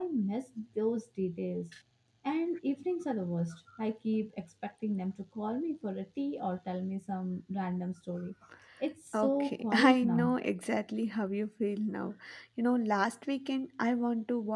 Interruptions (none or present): present